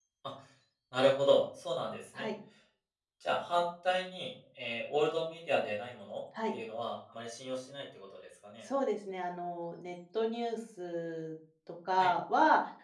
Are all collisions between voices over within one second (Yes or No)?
Yes